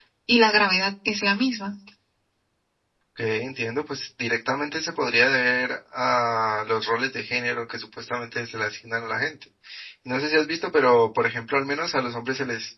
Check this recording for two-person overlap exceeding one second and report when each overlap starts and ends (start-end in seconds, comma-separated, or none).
none